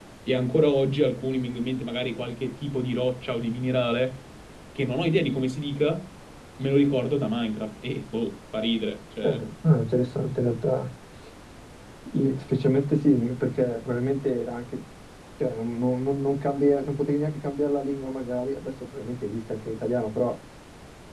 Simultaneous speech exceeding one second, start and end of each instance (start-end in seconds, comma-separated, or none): none